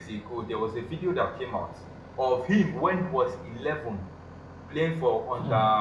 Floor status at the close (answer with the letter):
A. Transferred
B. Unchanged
B